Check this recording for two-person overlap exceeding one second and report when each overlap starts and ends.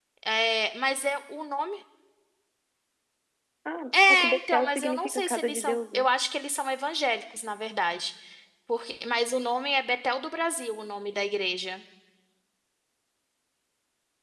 3.9-6.0

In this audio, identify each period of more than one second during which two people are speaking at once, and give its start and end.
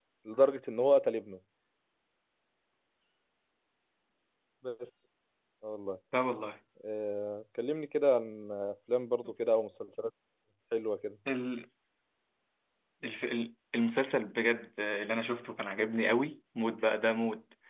none

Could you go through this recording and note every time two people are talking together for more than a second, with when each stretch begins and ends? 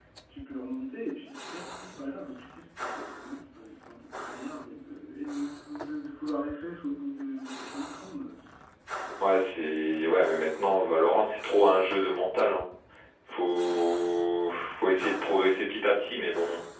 none

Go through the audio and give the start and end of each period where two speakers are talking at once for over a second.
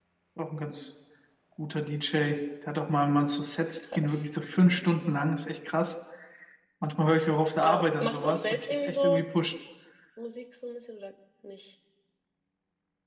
7.6-9.2

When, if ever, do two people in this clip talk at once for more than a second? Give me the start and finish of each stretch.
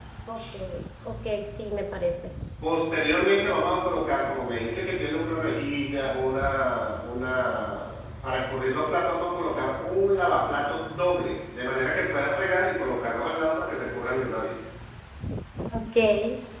none

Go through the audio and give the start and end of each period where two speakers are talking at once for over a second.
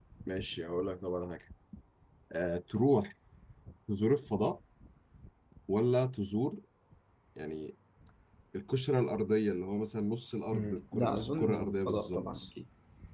10.5-12.5

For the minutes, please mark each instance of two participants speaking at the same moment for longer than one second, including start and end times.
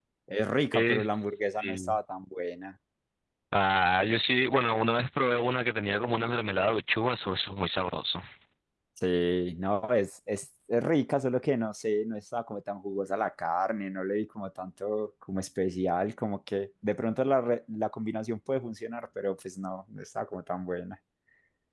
0.7-2.0

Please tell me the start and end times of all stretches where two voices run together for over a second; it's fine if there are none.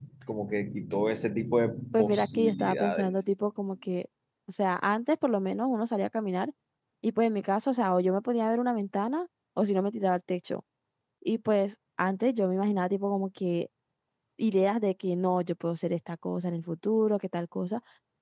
1.9-3.2

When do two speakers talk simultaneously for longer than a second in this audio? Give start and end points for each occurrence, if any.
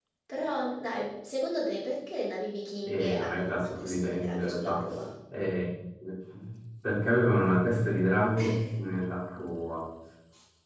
2.8-4.8

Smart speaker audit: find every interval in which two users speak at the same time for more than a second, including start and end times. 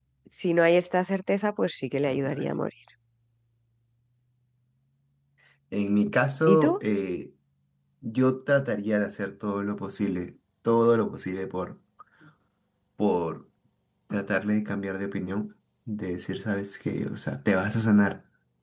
none

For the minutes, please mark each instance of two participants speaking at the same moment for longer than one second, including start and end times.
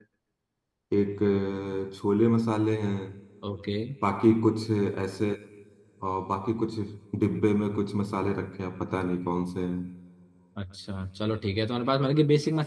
none

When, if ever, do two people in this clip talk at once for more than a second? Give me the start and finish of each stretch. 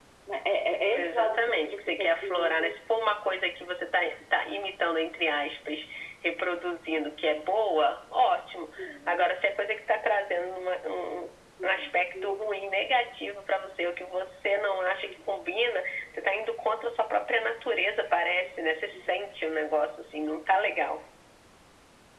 0.9-2.7

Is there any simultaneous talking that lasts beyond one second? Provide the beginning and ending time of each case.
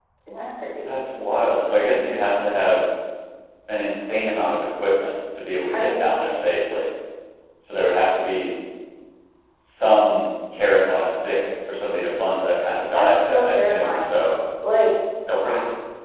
12.9-14.3

